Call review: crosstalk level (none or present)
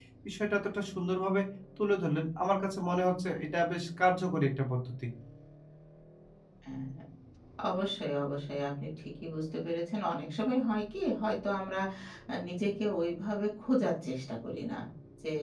none